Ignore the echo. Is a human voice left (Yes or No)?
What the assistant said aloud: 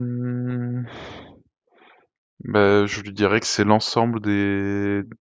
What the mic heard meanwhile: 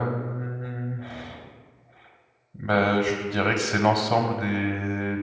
No